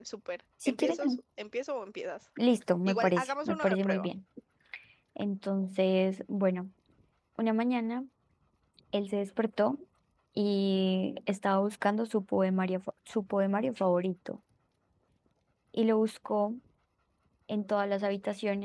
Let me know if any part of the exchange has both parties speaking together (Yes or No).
Yes